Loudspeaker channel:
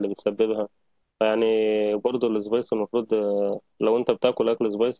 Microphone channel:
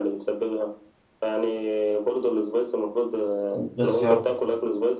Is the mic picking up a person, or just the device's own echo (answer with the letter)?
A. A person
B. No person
A